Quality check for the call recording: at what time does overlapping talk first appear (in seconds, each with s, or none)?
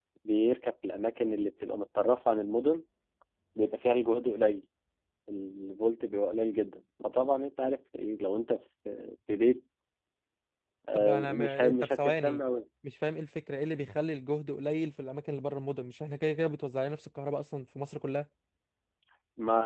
10.9 s